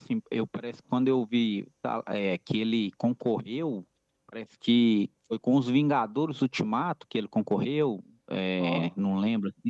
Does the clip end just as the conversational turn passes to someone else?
No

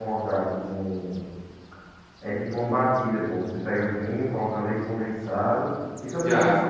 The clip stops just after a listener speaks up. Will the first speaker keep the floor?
No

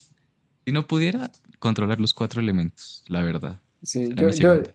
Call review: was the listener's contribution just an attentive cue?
No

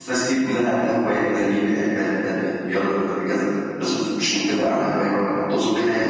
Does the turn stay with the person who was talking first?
No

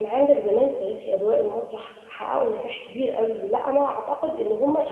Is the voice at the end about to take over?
Yes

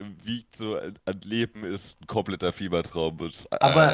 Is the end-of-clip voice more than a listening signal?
Yes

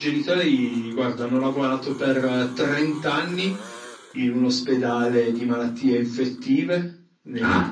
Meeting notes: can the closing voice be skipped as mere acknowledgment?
Yes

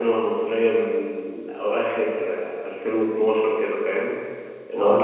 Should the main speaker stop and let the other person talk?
No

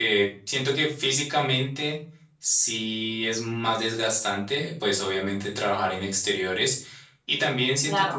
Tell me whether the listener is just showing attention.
Yes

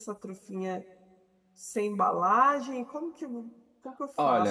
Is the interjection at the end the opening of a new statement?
Yes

